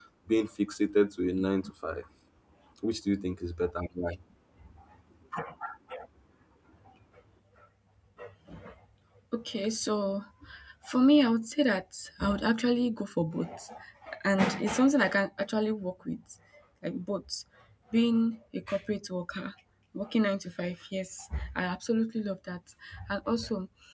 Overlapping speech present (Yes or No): No